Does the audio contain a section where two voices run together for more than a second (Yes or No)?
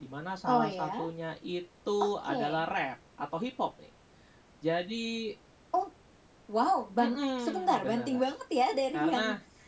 Yes